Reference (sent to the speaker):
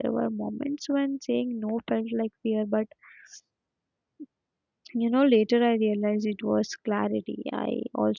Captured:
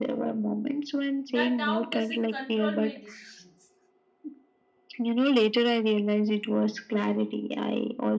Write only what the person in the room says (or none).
that doubt doesn't control my decisions